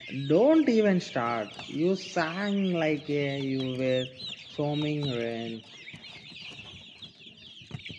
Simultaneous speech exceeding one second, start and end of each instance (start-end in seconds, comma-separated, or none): none